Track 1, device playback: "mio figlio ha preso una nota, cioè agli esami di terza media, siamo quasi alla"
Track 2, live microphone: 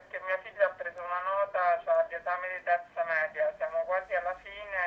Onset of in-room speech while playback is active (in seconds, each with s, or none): none